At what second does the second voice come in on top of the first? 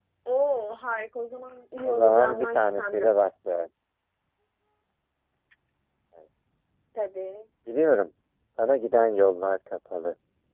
1.9 s

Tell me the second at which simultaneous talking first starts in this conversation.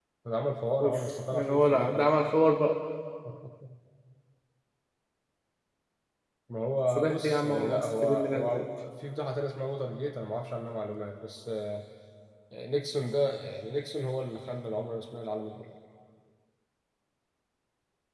0.8 s

